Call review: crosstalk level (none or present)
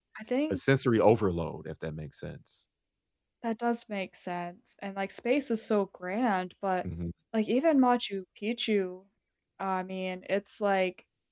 none